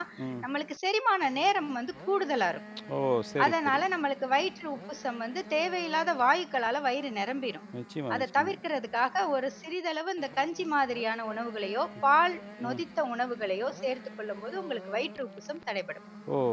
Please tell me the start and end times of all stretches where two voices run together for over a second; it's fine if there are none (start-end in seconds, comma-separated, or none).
none